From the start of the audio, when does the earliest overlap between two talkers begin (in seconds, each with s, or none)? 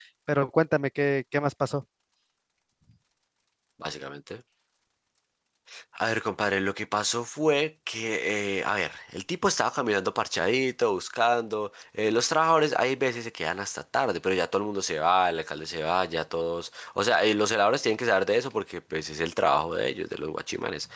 none